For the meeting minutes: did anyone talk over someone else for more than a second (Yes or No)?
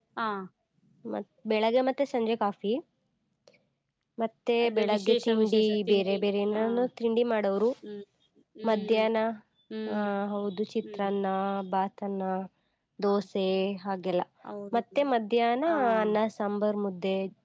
Yes